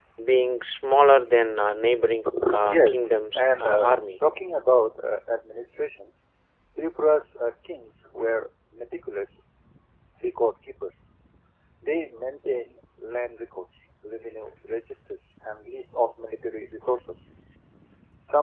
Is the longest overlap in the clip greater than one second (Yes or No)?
Yes